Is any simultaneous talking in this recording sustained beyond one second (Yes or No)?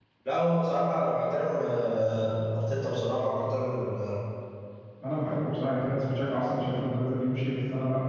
No